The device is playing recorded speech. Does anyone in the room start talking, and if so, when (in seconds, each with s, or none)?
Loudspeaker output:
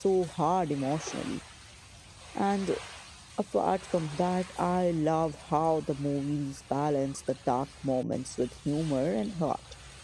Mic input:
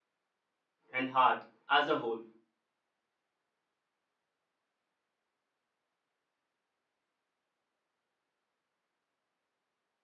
0.9 s